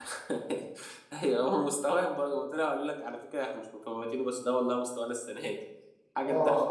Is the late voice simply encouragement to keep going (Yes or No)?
No